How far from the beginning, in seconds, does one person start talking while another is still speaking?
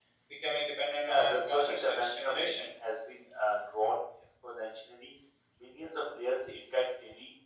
1 s

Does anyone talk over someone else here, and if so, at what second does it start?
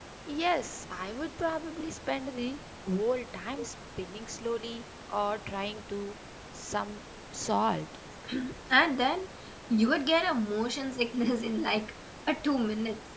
none

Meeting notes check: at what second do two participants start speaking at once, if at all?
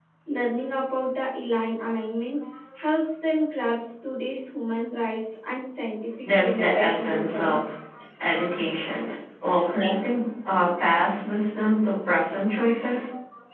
6 s

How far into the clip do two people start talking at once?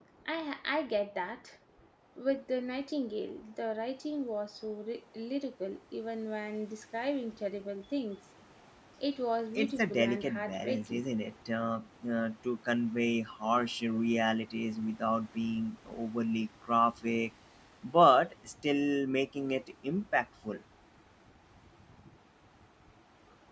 10 s

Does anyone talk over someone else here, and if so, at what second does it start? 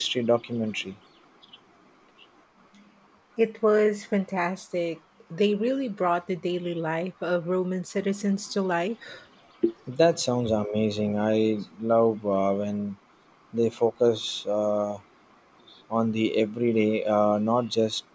none

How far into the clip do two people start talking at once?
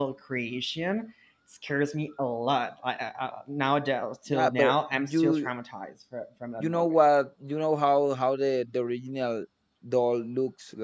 4 s

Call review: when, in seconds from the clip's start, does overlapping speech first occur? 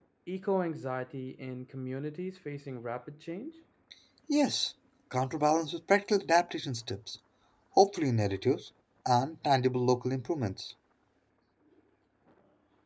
none

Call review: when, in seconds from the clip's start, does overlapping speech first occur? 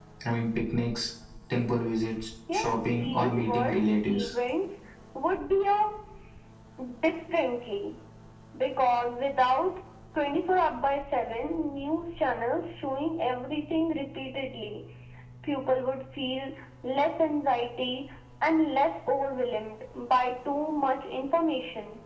2 s

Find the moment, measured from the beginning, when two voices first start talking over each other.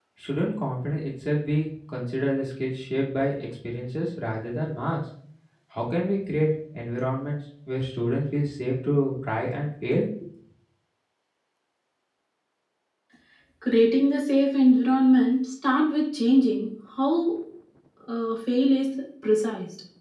none

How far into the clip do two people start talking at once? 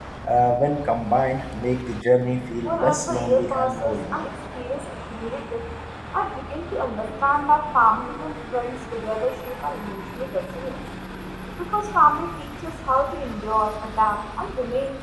3 s

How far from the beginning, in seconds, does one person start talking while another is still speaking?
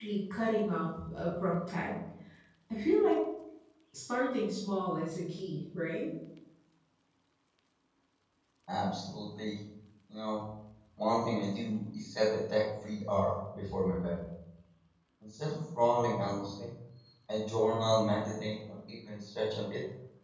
none

